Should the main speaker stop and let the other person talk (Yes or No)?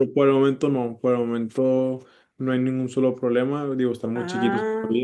No